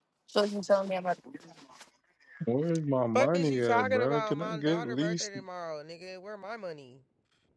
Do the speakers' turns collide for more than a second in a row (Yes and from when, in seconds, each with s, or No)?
Yes, from 3.2 s